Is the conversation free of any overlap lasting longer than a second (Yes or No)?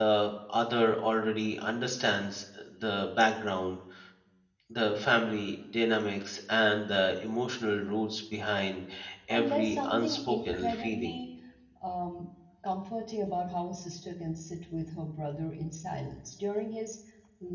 No